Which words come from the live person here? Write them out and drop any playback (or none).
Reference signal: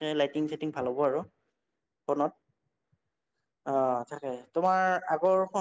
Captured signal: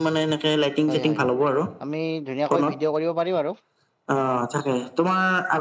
হয় হয় আমি ধুনীয়াকৈ ভিডিঅ' কৰিব পাৰিম আৰু